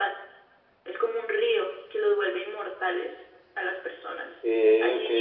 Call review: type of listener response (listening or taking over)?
listening